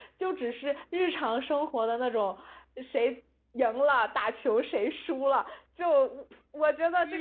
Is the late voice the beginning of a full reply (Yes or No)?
No